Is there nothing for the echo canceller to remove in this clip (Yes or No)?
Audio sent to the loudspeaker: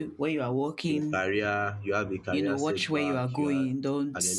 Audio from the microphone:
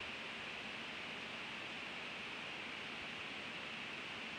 Yes